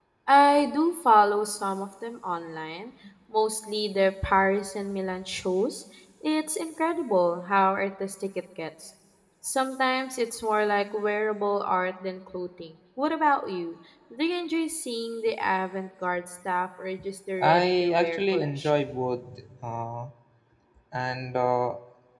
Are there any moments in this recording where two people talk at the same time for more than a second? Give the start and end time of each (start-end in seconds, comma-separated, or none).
17.4-18.8